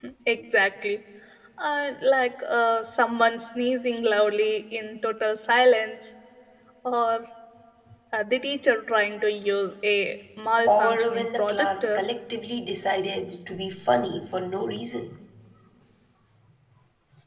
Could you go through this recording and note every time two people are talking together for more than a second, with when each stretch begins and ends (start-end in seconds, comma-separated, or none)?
10.6-11.9